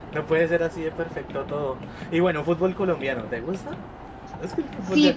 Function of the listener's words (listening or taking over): taking over